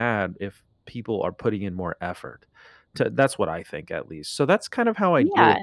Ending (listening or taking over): listening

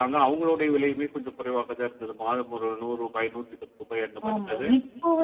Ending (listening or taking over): taking over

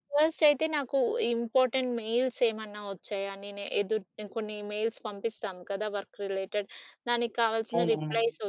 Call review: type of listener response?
listening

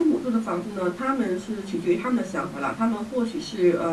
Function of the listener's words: listening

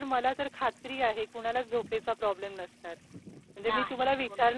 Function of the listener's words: listening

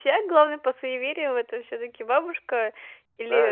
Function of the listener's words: taking over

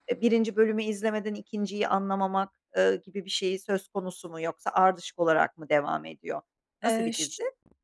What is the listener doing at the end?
taking over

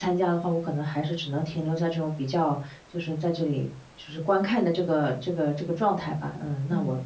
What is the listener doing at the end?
listening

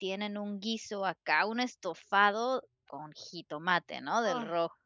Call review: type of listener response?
listening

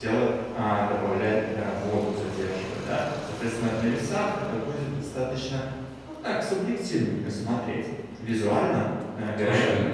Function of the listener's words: listening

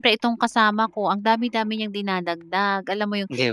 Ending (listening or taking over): listening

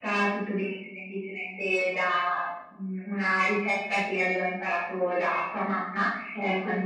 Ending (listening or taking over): listening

